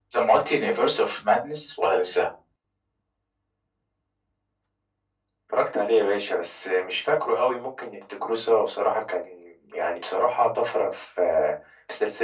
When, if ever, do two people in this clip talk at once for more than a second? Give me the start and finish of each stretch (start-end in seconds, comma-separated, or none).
none